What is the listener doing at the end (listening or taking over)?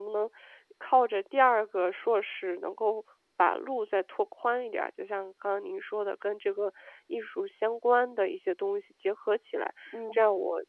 listening